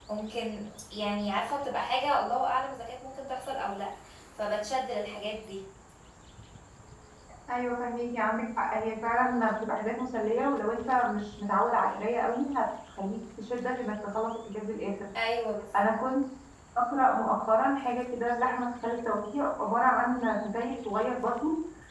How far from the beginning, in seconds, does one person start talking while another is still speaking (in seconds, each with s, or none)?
none